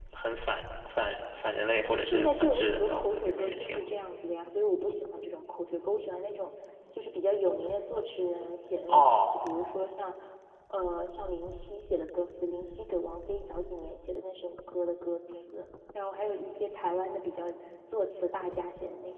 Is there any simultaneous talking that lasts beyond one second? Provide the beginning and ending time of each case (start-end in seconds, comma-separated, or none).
1.8-3.8